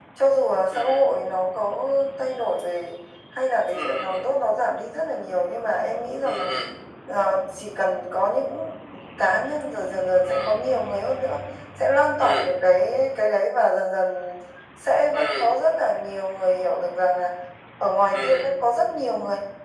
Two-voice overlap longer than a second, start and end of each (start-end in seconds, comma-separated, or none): none